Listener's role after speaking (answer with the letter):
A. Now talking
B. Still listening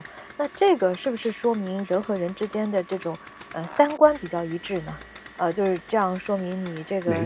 B